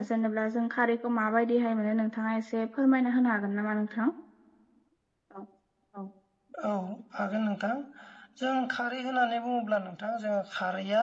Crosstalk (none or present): none